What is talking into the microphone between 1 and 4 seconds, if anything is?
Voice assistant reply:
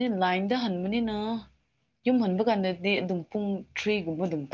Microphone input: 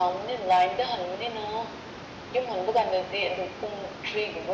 echo only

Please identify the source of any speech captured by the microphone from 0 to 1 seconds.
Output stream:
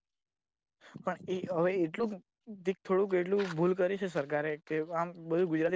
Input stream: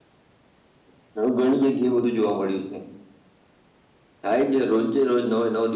neither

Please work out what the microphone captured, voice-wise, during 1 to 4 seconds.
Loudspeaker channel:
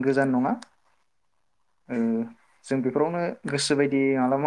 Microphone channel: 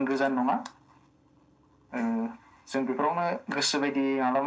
echo only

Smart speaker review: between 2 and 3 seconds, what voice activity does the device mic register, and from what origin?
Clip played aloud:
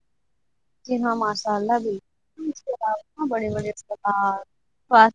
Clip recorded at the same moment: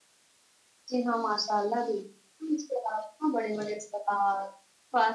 echo only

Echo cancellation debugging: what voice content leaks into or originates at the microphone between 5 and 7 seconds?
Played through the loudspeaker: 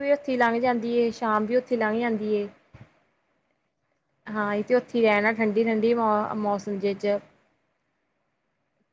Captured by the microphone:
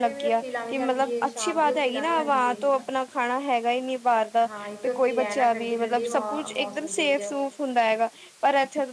both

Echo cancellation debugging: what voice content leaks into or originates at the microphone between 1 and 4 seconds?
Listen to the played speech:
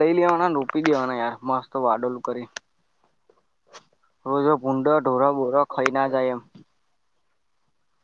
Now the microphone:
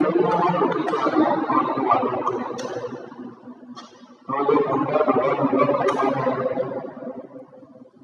echo only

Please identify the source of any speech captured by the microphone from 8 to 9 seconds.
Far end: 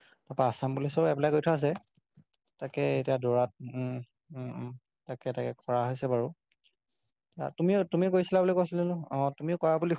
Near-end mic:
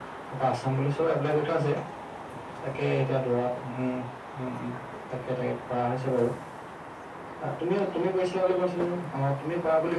echo only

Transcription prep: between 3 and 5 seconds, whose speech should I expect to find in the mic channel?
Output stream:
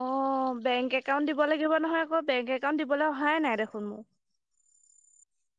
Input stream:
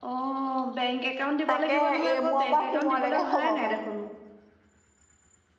both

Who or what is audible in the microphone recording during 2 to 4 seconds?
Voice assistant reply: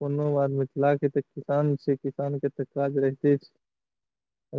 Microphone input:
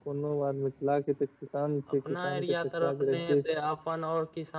both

